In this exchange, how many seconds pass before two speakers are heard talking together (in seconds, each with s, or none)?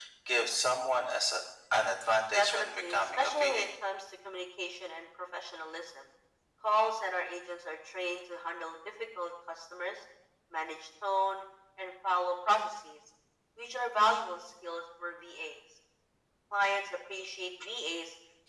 2.3 s